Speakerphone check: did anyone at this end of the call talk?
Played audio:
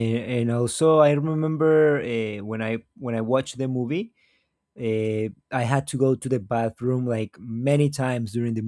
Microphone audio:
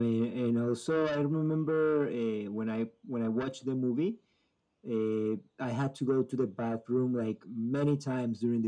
No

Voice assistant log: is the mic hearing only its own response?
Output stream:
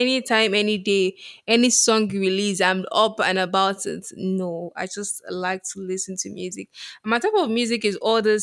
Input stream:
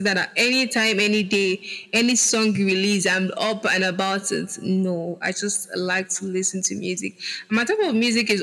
Yes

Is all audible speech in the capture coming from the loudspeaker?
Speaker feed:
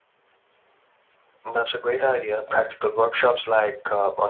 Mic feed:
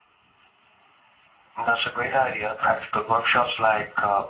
Yes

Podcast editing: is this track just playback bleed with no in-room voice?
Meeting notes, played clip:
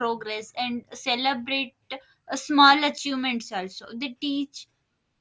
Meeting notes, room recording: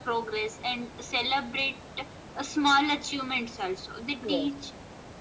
No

